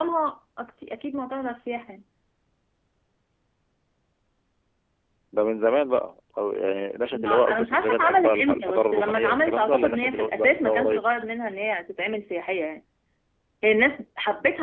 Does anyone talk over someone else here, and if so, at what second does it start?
7.1 s

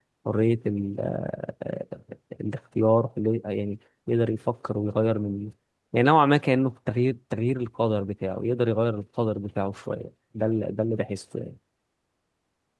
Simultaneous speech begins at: none

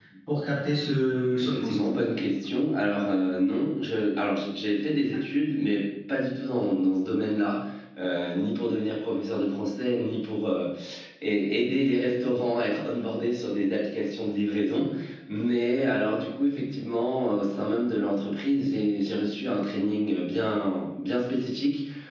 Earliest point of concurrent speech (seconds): 0.5 s

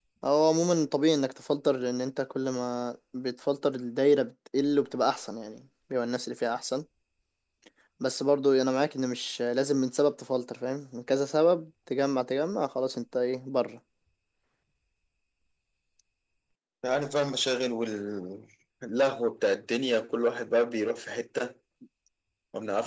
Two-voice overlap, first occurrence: none

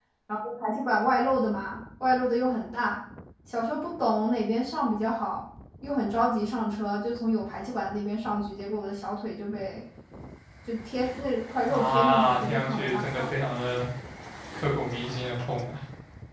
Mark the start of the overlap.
11.7 s

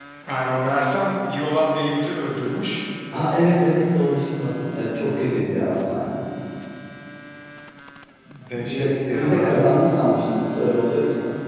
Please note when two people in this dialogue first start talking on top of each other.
8.5 s

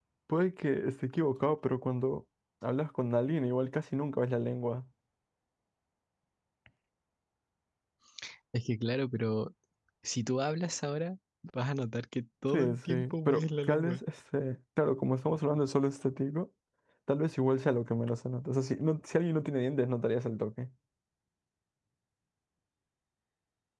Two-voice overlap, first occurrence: 12.5 s

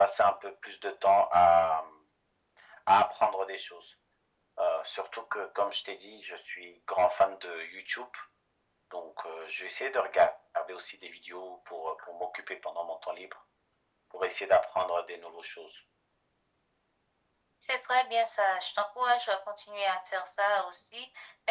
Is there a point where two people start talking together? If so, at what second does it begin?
none

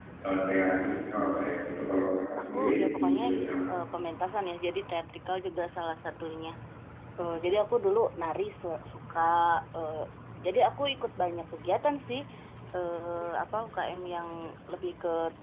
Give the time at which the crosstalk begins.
2.4 s

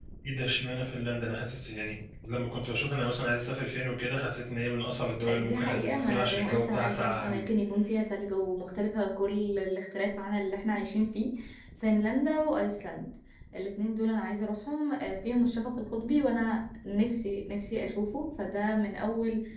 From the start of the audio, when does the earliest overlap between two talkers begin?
5.2 s

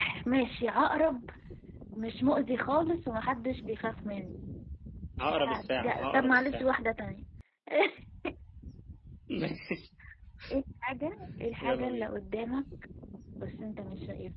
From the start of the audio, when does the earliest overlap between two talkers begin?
5.5 s

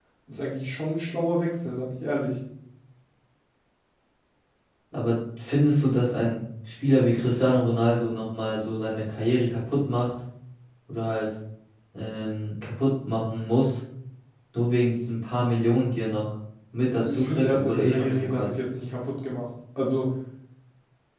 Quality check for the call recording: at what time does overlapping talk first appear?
16.9 s

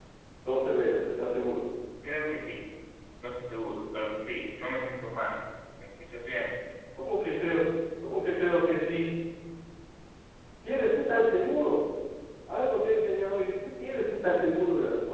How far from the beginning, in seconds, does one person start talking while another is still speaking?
none

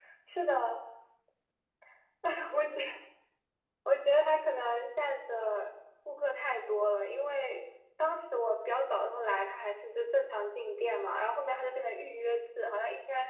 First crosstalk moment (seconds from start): none

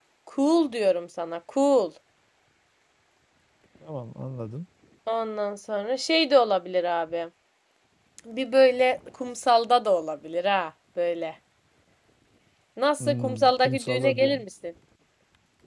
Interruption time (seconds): 13.0 s

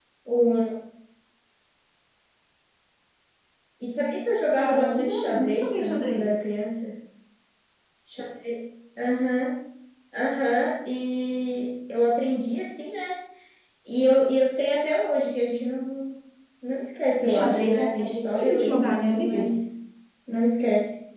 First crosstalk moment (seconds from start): 4.6 s

